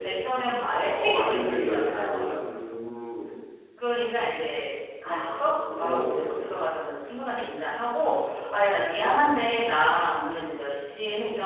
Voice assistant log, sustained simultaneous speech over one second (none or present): present